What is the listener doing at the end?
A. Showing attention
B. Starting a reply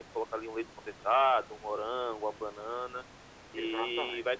A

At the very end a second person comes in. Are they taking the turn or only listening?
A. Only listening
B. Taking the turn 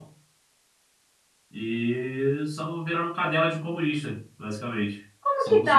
B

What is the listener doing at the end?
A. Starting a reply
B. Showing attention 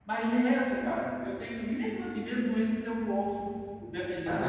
A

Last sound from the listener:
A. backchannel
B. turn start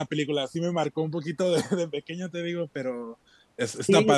B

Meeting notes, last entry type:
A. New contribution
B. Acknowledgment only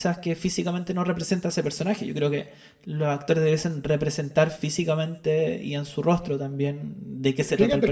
A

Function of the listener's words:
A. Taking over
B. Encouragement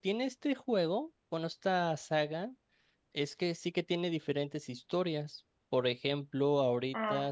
B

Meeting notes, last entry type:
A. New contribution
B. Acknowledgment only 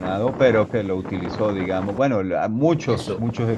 B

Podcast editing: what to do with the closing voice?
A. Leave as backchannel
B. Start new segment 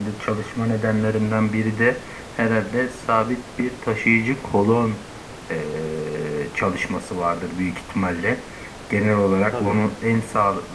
A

